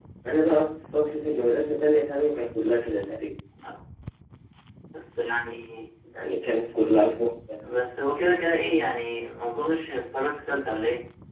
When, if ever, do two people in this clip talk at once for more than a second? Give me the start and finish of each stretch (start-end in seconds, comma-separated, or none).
none